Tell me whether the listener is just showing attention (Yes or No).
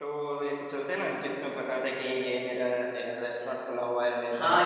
No